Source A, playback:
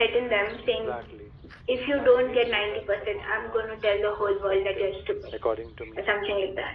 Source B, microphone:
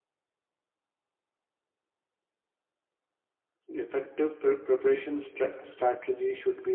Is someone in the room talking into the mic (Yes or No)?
Yes